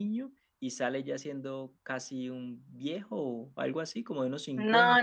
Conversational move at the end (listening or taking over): taking over